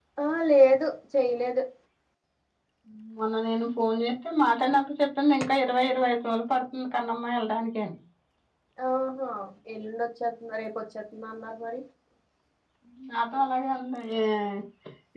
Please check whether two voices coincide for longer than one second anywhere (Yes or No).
No